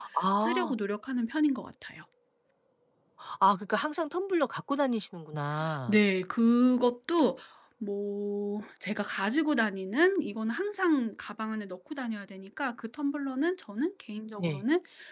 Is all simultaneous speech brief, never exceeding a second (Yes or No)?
Yes